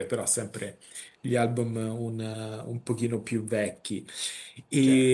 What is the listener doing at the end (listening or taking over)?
listening